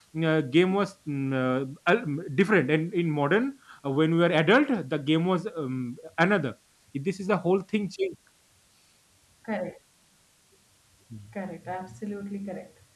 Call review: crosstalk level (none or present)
none